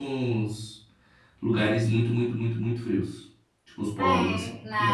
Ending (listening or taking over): taking over